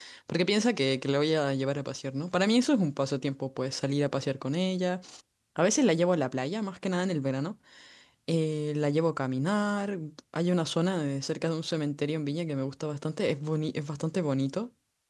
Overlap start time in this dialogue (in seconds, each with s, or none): none